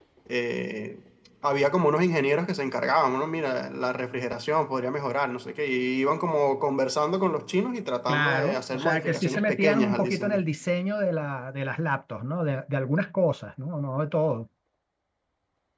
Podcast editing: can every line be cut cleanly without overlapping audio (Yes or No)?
No